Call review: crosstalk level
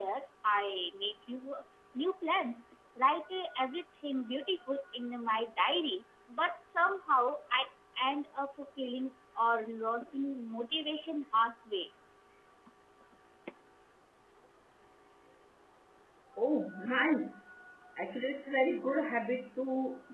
none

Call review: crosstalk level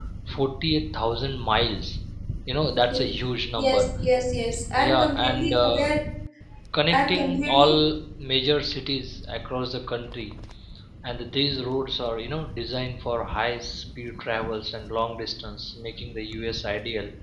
present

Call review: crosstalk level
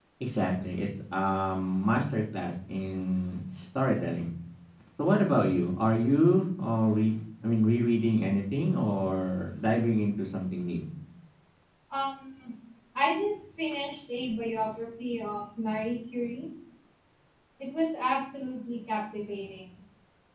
none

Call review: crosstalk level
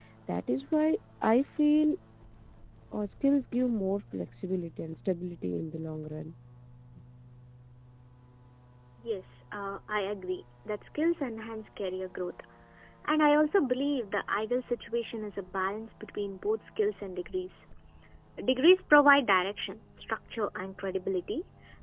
none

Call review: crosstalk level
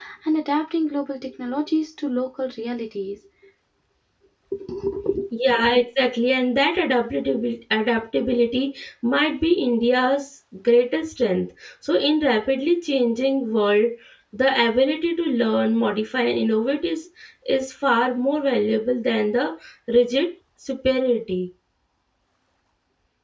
none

